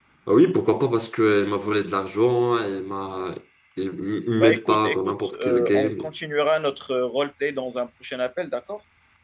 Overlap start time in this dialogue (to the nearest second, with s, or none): 4 s